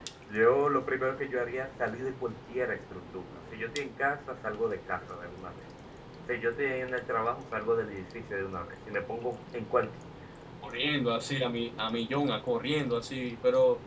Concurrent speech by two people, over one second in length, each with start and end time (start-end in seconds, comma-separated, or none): none